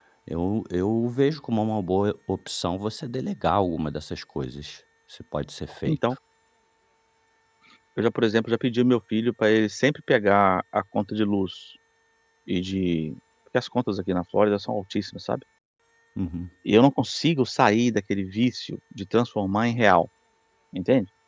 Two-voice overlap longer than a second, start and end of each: none

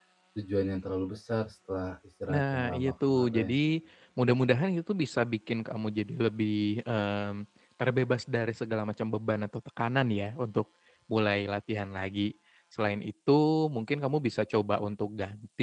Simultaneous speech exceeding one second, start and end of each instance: 2.3-3.6

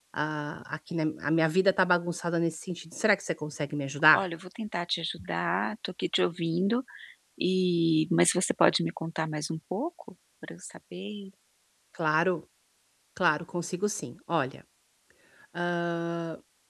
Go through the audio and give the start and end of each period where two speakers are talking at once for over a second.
none

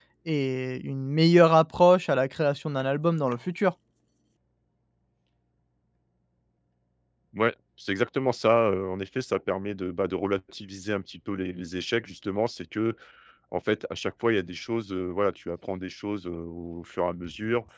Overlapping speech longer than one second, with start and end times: none

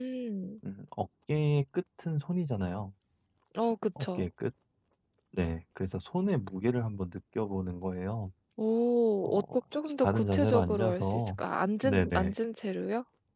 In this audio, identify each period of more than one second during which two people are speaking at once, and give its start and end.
10.0-11.3

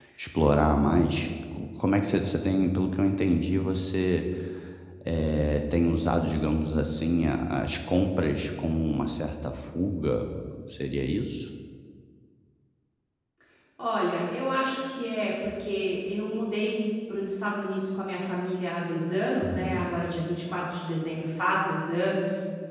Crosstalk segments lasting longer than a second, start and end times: none

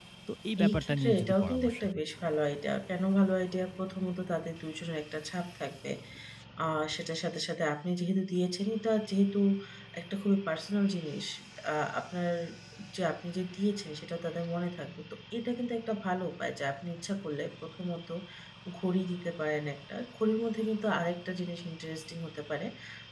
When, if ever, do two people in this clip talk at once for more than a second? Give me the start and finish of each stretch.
0.6-2.0

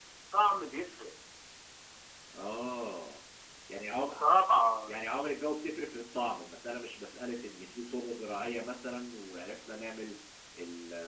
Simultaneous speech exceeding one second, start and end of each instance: none

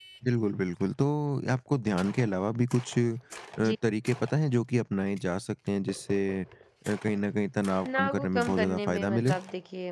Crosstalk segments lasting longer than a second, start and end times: 7.8-9.3

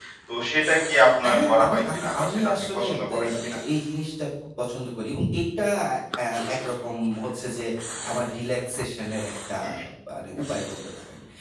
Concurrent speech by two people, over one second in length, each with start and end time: 1.3-3.6

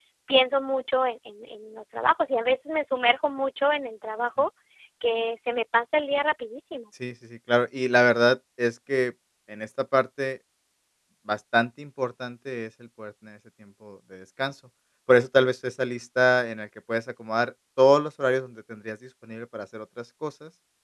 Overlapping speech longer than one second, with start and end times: none

